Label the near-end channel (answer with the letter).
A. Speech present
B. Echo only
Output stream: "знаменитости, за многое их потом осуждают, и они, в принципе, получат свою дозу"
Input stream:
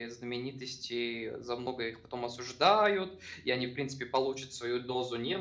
B